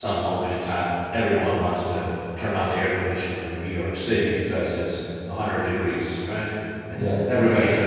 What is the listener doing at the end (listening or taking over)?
listening